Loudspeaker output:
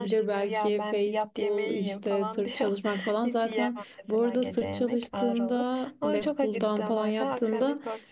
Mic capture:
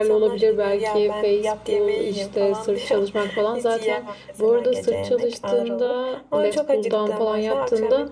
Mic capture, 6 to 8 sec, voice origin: echo only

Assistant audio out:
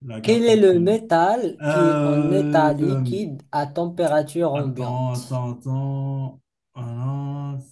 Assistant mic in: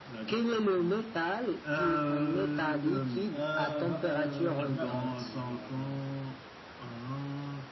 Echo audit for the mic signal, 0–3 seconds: echo only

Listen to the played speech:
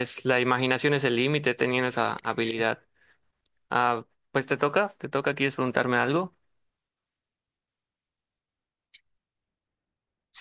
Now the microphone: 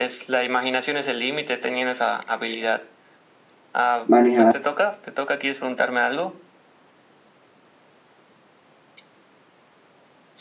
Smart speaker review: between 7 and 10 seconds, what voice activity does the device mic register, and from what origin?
neither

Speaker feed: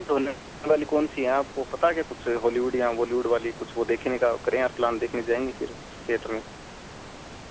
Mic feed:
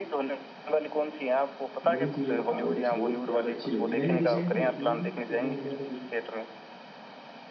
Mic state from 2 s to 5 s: both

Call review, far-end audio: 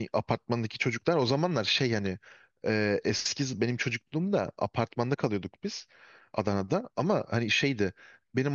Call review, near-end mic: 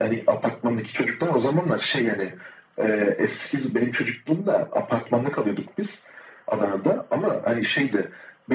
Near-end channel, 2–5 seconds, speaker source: echo only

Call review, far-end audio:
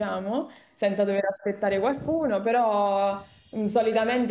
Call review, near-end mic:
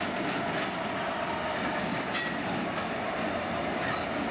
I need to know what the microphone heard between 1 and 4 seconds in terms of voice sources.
neither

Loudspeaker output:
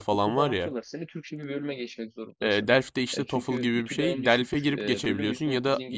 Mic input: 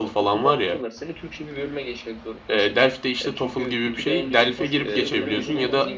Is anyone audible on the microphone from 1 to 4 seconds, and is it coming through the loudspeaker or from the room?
echo only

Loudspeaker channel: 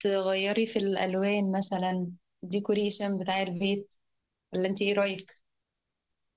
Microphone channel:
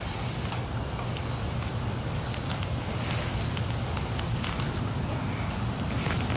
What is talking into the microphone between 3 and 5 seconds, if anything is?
neither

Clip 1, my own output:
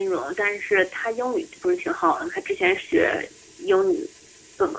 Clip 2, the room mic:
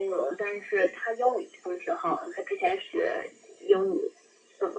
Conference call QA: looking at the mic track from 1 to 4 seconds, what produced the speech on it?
echo only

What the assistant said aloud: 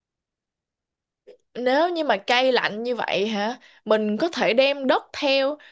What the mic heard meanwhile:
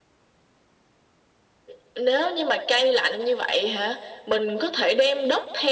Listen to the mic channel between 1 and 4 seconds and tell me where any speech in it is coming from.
echo only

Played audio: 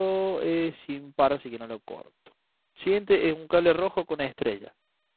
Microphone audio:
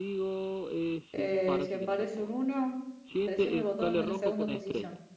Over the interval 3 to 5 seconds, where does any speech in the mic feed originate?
both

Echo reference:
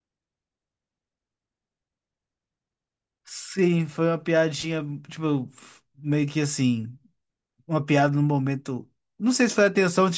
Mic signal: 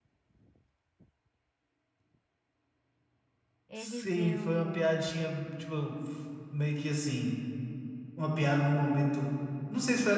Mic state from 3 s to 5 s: both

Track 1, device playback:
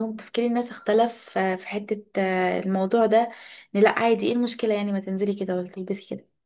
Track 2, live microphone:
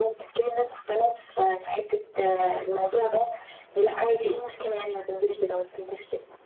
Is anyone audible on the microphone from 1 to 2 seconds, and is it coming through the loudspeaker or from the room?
echo only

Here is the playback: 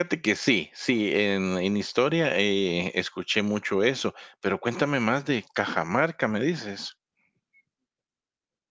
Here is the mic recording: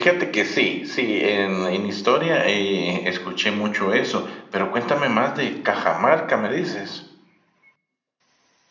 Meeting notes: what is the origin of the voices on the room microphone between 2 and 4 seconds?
echo only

